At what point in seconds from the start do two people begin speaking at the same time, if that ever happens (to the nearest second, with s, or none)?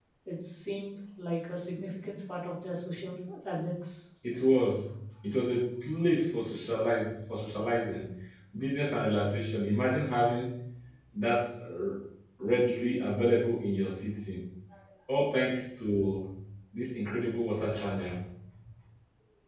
none